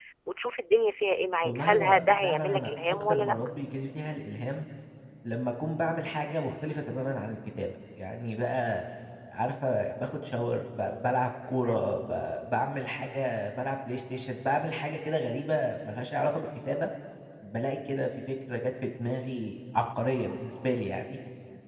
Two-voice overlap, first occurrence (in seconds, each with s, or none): 1.4 s